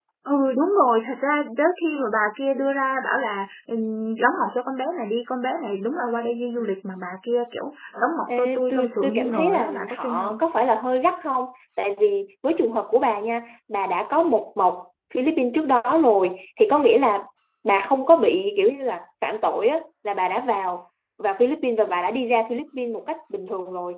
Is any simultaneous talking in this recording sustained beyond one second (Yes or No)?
Yes